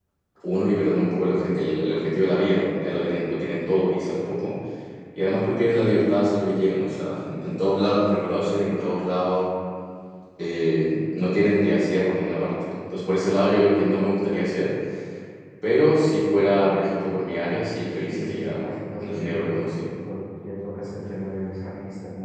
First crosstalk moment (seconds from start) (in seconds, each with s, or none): 18.0 s